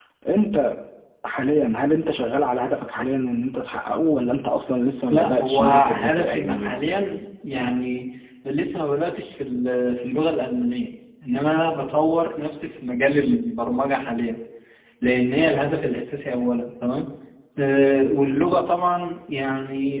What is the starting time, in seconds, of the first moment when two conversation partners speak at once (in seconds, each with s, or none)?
5.1 s